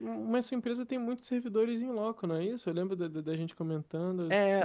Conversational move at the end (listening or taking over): taking over